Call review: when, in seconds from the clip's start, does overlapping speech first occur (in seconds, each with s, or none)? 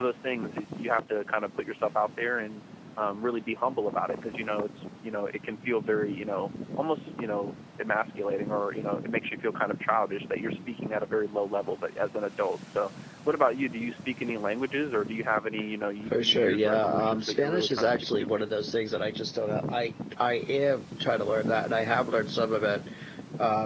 16.1 s